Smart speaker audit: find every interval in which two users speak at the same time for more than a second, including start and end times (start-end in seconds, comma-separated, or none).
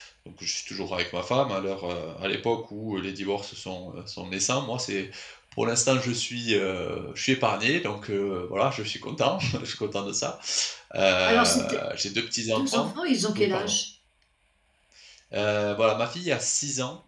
none